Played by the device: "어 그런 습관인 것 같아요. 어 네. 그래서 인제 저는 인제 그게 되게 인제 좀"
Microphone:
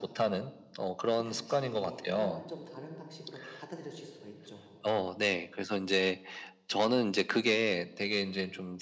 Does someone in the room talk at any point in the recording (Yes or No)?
Yes